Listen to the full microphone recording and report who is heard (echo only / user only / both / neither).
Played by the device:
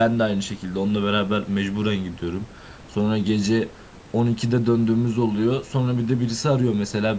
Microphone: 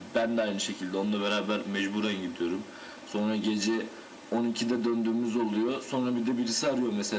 echo only